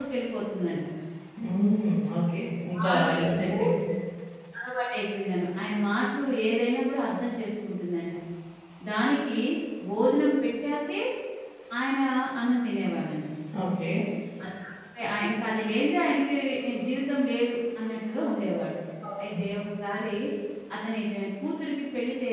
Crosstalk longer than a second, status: none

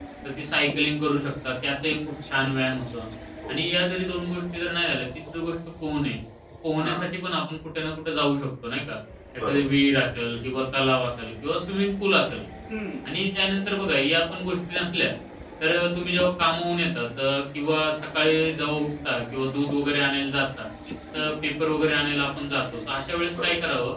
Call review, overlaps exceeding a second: none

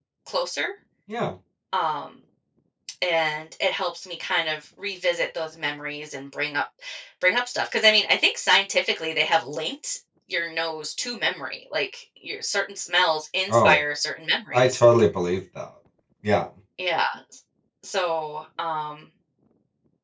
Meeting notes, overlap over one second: none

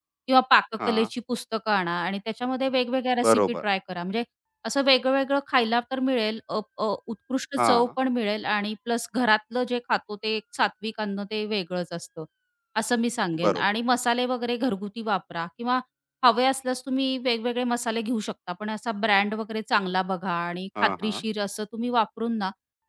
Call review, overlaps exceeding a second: none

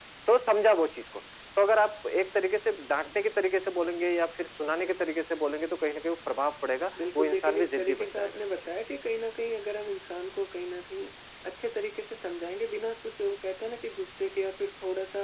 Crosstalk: present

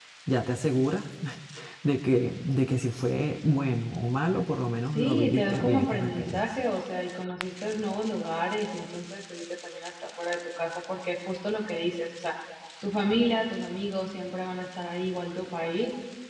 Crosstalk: present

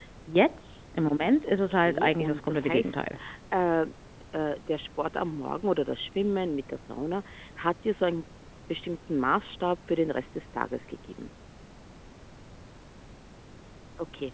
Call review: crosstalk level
present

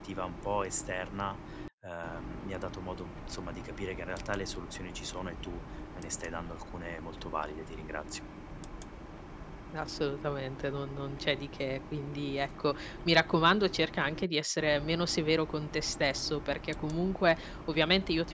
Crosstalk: none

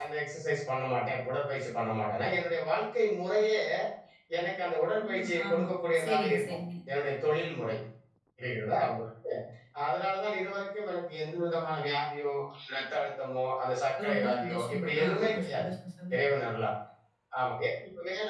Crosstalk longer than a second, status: present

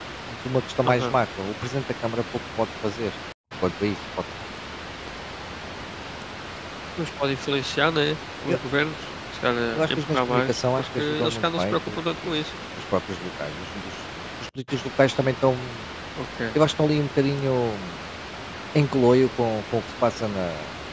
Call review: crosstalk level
present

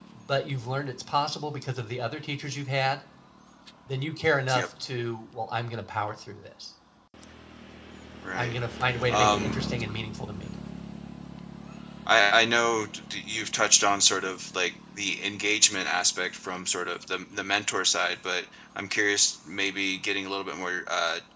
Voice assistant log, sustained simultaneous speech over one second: none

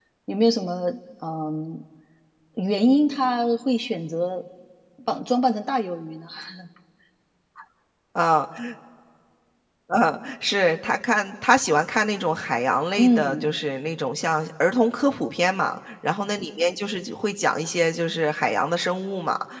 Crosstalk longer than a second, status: none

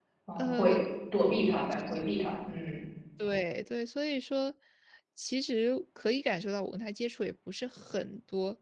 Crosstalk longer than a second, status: none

